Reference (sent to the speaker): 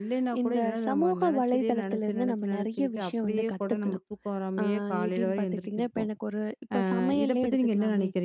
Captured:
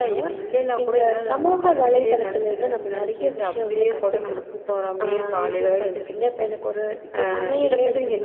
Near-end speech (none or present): none